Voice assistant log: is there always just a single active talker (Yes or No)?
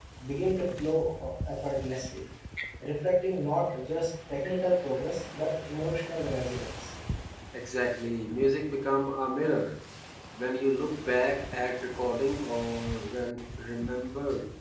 Yes